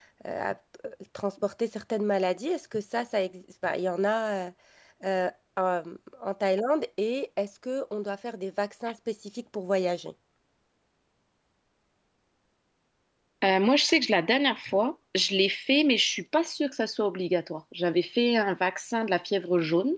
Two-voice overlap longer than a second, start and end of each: none

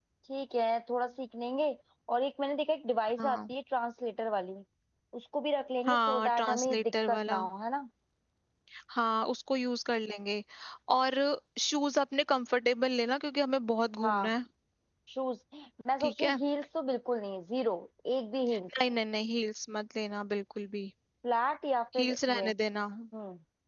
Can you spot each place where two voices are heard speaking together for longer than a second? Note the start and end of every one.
5.9-7.4

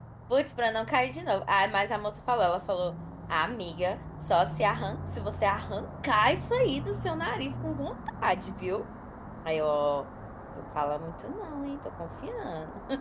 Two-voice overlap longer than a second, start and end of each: none

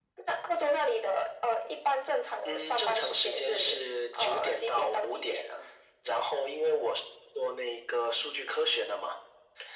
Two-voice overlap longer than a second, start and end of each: 2.5-3.8, 4.2-5.4

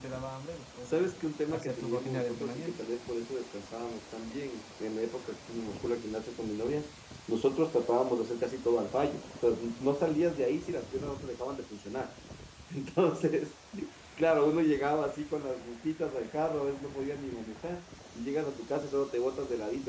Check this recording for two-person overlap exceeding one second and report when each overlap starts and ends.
1.5-2.8

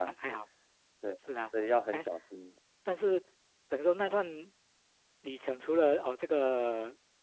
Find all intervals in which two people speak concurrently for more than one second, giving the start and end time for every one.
none

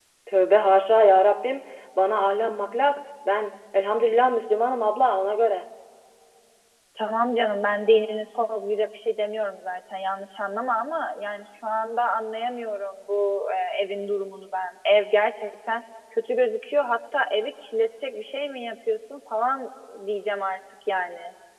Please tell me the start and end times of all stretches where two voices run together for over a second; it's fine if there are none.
none

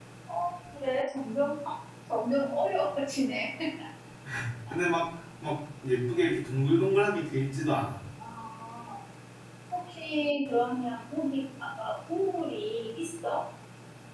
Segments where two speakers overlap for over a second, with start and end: none

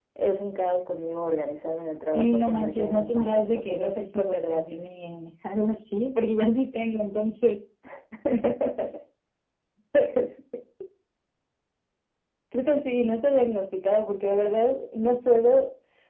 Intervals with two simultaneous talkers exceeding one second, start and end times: 2.1-4.8

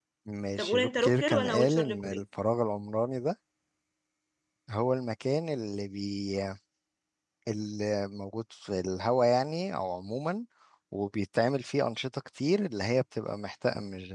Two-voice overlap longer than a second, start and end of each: 0.6-2.2

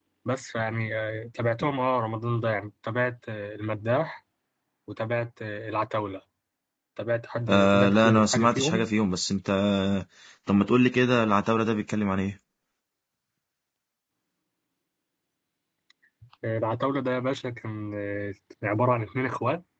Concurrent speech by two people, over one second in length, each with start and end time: 7.5-8.9

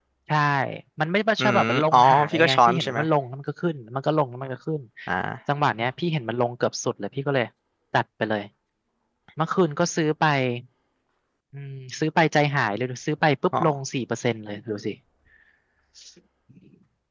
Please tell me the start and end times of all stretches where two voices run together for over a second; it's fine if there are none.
1.4-3.0

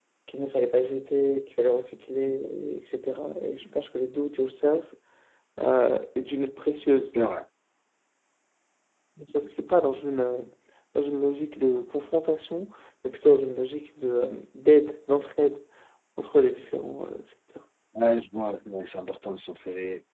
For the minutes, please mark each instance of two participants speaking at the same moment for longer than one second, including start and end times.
none

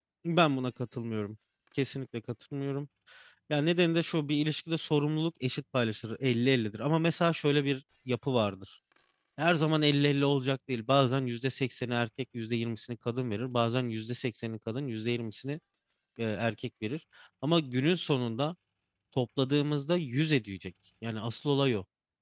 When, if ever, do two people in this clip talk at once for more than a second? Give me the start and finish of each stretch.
none

